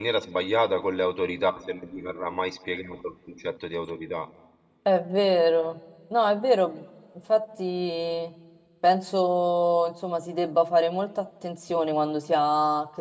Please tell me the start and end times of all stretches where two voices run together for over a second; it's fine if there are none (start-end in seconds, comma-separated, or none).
none